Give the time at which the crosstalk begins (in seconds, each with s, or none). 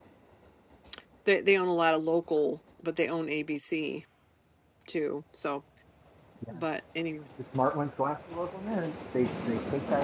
none